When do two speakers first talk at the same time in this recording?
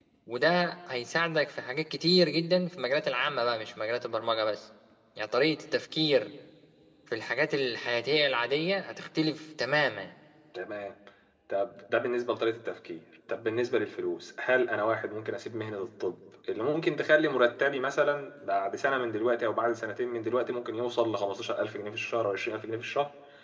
none

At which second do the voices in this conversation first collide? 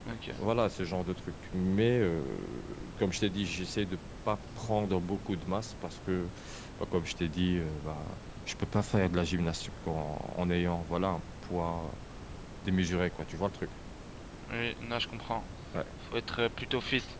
none

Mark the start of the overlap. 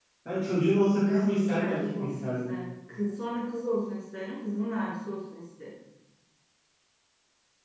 1.1 s

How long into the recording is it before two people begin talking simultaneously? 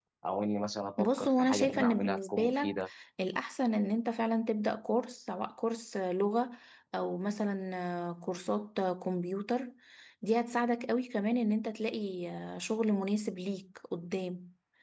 1.0 s

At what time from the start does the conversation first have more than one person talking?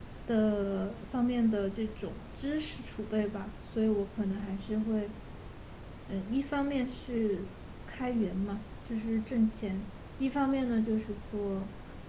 none

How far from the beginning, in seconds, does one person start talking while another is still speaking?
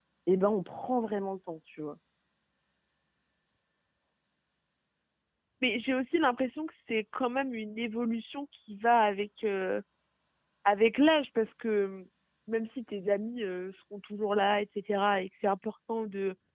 none

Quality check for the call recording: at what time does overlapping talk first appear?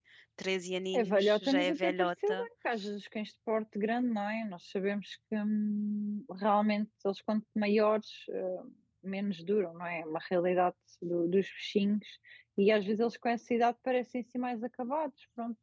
1.0 s

